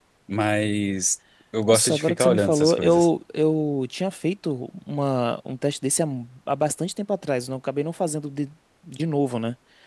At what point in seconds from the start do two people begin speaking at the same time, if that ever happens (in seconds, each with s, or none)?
1.7 s